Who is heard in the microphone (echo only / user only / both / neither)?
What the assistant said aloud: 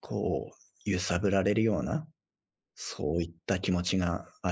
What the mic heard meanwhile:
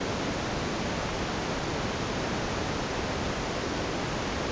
neither